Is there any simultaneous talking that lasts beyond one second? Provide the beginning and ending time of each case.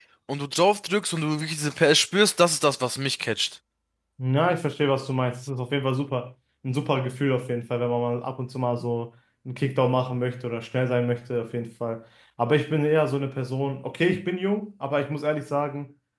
none

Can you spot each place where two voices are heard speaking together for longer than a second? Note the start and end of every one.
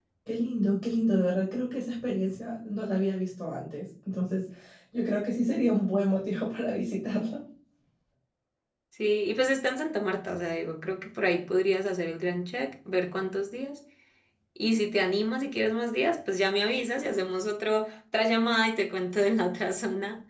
none

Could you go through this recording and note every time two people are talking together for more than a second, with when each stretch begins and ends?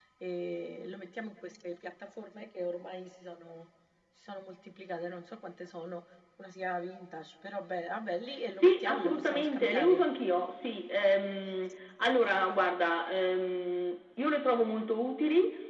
8.5-10.0

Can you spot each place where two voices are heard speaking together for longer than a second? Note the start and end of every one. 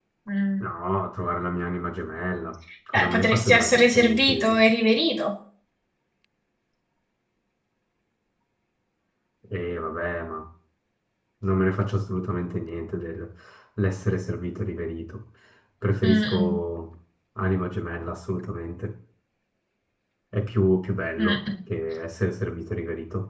2.9-4.6

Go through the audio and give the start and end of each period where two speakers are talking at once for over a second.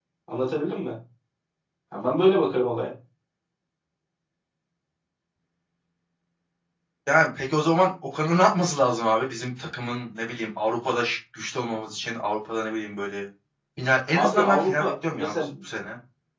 14.1-15.3

